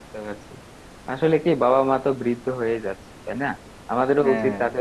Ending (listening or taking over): listening